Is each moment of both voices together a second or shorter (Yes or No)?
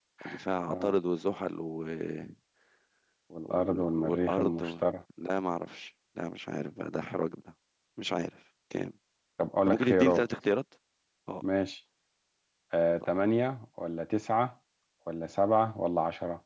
No